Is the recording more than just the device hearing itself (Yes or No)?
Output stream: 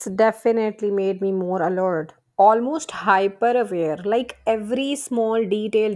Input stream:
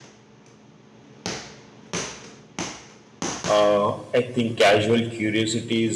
Yes